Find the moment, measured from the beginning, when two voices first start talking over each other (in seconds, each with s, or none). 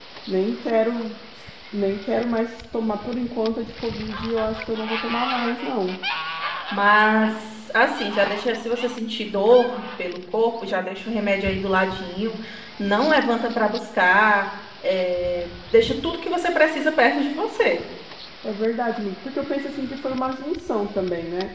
none